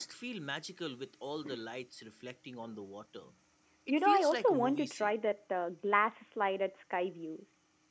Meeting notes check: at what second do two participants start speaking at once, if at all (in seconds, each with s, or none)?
3.9 s